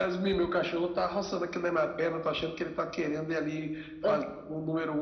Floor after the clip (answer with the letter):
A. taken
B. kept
B